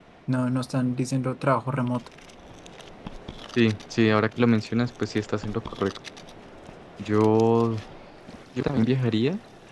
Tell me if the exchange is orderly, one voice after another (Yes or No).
Yes